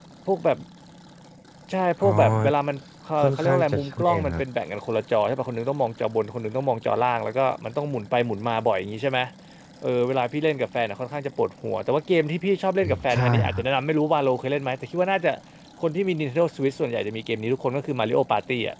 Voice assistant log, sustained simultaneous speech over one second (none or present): present